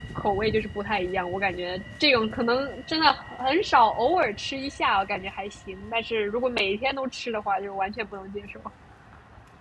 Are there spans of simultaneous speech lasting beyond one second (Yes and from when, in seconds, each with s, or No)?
No